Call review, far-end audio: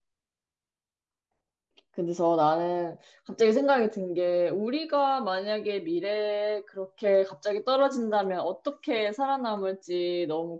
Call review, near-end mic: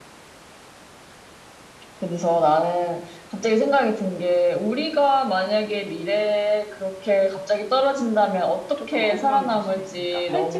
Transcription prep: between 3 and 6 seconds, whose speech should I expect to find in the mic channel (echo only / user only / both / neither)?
echo only